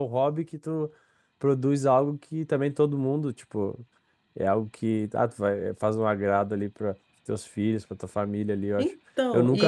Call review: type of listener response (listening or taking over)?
listening